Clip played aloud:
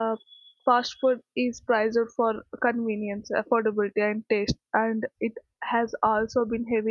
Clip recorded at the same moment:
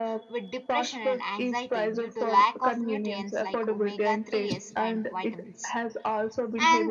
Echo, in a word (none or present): present